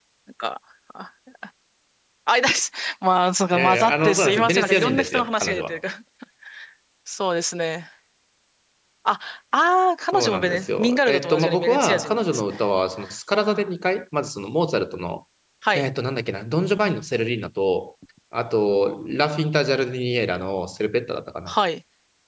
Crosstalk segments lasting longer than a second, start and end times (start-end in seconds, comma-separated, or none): 3.5-5.8, 10.1-12.5